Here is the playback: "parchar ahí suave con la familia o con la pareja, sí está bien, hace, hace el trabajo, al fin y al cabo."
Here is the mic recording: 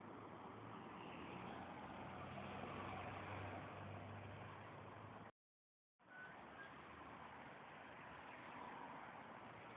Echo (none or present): none